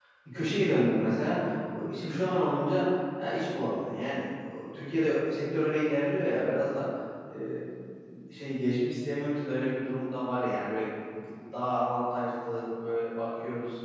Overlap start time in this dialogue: none

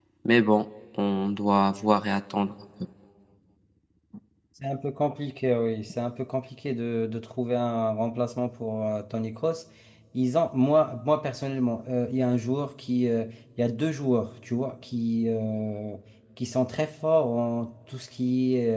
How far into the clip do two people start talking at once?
none

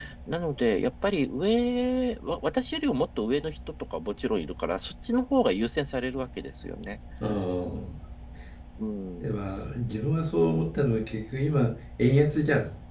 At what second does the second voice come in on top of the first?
none

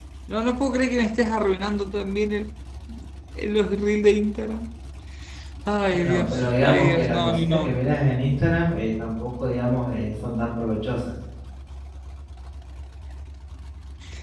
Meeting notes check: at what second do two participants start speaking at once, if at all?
5.9 s

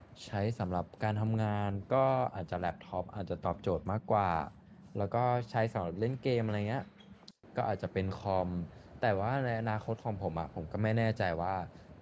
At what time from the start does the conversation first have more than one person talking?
none

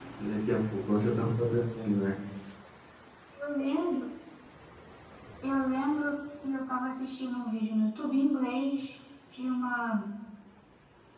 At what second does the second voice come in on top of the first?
none

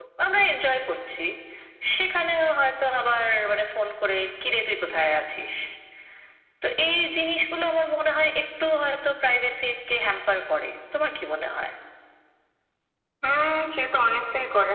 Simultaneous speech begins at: none

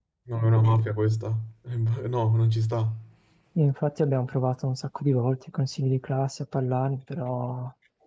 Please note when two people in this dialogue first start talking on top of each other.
none

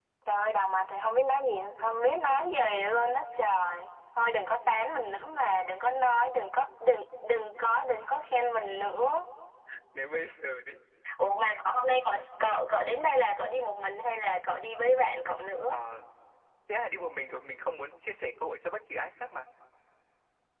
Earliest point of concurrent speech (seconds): none

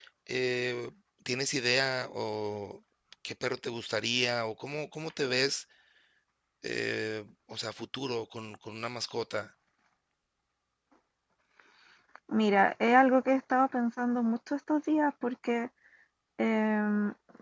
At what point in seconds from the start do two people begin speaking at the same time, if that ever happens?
none

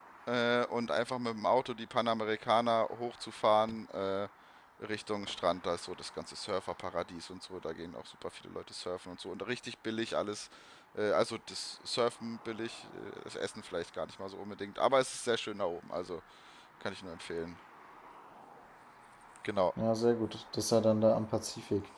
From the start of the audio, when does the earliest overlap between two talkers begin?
none

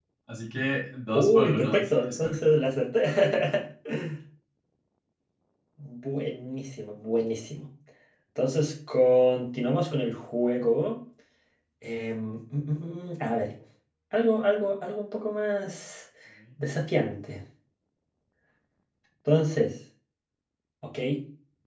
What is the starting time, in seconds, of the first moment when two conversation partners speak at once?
1.1 s

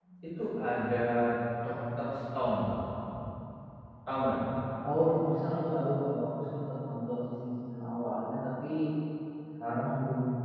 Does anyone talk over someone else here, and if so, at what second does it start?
none

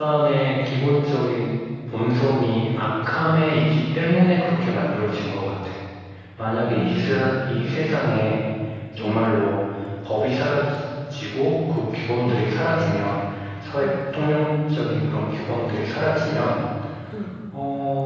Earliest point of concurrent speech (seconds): 6.6 s

